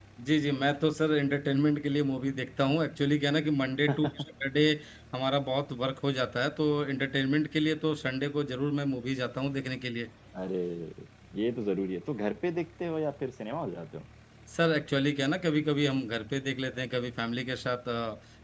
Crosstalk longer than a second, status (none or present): none